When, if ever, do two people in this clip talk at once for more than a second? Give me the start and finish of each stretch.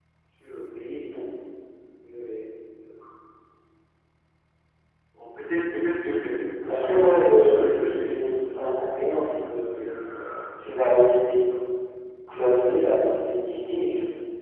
6.7-8.7

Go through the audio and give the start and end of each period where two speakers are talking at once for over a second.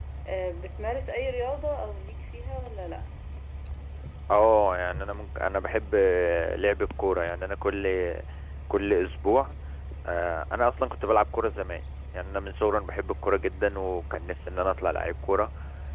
none

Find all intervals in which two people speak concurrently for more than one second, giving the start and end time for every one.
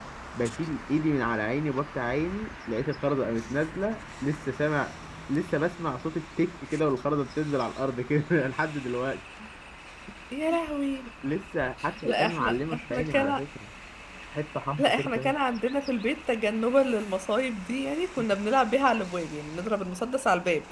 12.1-13.4

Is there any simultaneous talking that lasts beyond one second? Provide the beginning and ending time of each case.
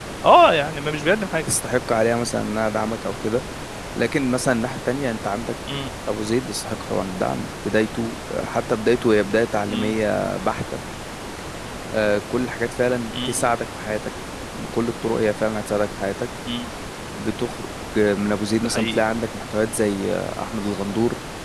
none

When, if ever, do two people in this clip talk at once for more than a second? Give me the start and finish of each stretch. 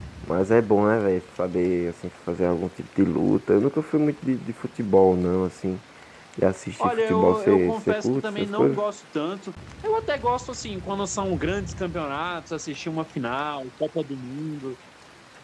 6.8-8.8

